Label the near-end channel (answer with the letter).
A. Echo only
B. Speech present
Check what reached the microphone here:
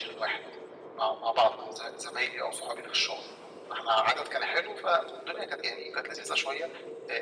A